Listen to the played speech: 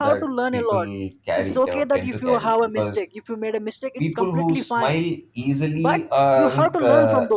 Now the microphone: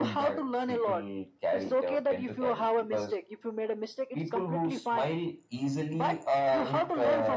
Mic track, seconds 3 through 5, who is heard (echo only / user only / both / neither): echo only